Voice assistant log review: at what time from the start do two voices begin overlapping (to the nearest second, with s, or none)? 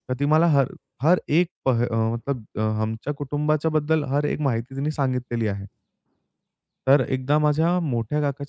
none